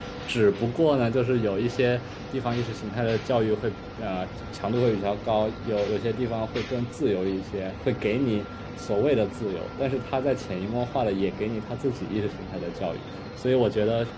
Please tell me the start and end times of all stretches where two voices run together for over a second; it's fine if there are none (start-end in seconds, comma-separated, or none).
none